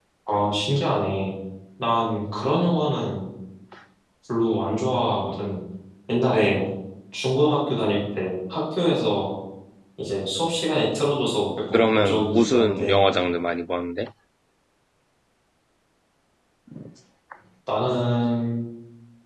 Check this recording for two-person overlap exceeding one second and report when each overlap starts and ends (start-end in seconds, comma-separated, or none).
11.7-13.0